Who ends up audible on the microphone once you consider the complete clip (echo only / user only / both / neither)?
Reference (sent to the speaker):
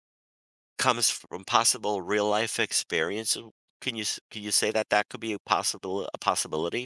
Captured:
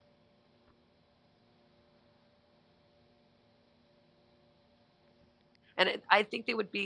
user only